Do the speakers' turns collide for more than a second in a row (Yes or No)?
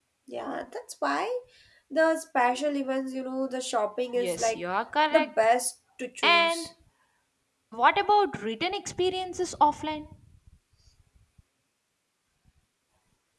No